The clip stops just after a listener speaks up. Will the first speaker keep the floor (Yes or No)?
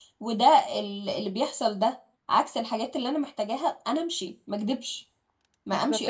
No